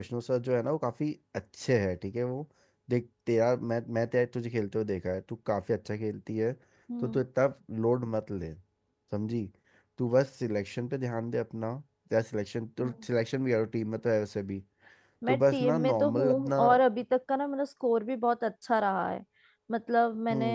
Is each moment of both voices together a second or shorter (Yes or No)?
No